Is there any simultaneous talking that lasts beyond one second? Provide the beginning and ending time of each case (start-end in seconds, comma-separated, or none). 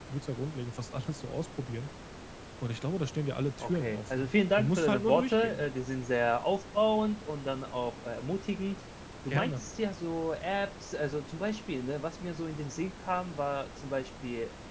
3.6-5.7